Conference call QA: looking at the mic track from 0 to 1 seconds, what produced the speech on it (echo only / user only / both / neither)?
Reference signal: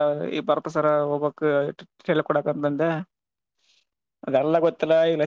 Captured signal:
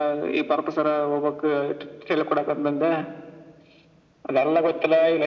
echo only